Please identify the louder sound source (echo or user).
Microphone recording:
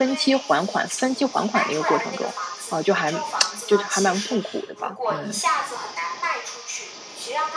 user